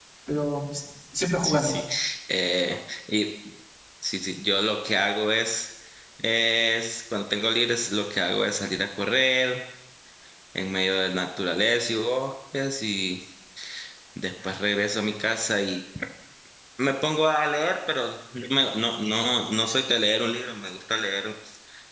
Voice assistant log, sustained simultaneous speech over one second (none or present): none